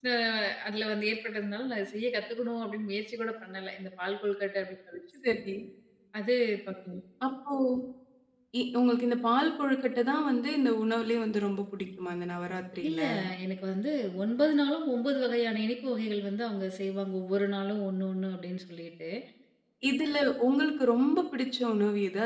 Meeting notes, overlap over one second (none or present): none